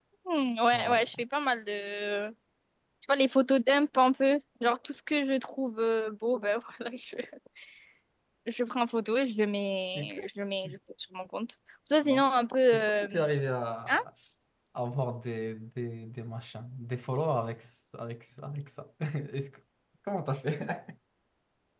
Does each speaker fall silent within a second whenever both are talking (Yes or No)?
Yes